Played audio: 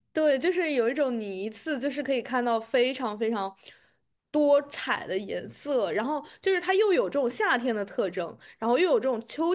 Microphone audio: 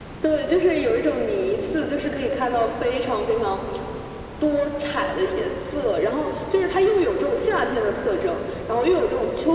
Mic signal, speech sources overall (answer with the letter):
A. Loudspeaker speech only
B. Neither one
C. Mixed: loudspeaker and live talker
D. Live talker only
A